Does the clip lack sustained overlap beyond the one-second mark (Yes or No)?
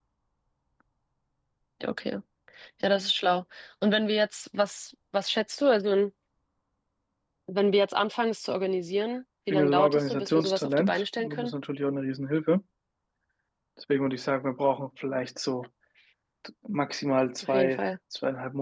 No